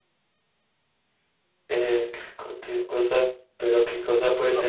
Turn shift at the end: Yes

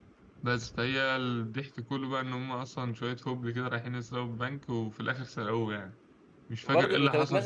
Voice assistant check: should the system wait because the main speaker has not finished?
No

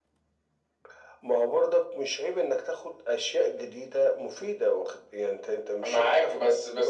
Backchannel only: No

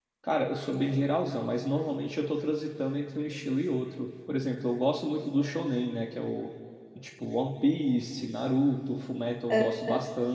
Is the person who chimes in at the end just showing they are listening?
Yes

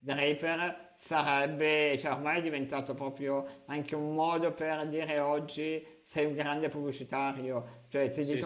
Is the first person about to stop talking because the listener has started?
No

